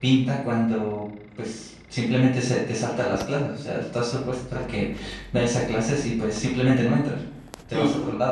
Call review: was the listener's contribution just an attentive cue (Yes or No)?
No